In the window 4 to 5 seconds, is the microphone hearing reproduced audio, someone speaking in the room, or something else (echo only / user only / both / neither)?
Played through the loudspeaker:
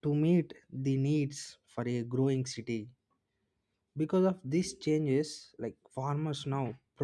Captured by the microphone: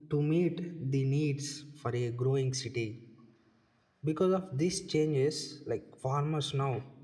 echo only